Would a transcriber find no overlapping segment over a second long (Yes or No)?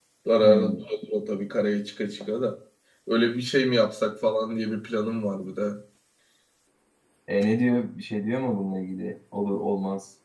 Yes